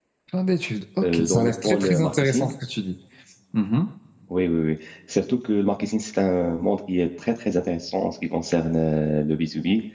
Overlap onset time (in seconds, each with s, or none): 1.0 s